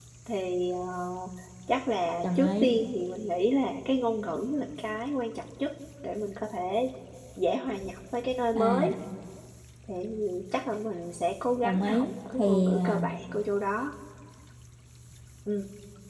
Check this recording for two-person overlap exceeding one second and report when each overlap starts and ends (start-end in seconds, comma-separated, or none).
11.6-13.1